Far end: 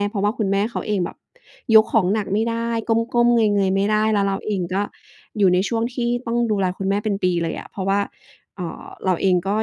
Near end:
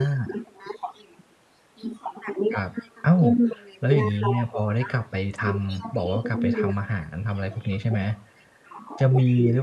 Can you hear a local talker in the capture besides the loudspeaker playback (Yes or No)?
Yes